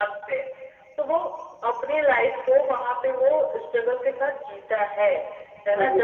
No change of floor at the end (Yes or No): Yes